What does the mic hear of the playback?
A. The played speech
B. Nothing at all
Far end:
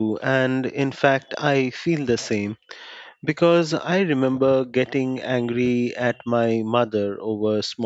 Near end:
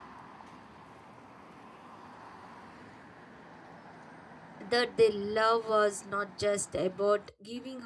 B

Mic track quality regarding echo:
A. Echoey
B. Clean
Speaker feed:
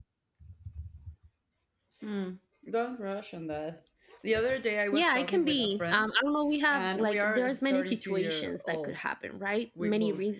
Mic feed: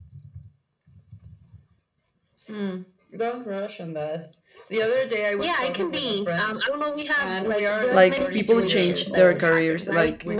A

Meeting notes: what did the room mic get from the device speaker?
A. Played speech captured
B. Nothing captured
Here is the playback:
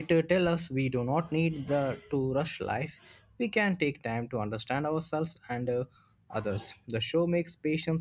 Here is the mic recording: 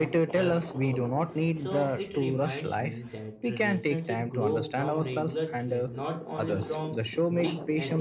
A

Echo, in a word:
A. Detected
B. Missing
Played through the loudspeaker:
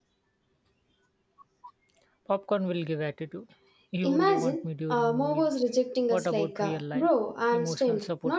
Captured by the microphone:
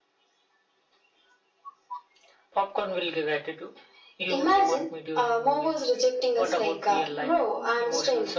A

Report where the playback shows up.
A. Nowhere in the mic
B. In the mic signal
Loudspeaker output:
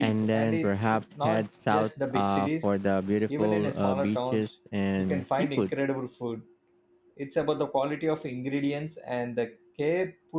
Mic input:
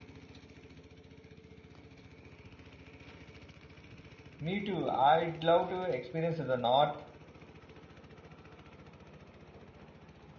A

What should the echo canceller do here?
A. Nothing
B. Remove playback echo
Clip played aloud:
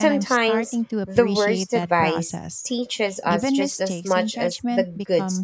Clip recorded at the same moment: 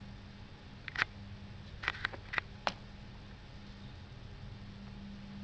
A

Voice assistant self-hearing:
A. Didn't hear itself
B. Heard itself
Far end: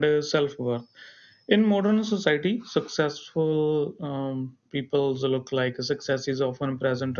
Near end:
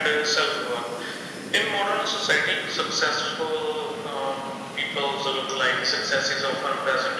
B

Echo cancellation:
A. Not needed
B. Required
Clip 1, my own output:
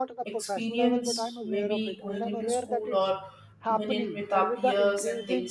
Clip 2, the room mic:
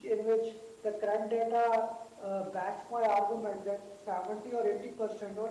A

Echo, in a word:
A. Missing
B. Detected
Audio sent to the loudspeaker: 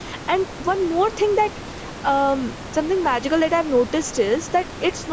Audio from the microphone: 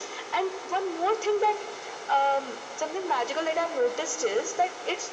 B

